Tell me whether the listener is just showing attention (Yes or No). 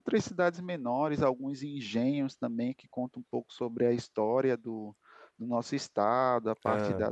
Yes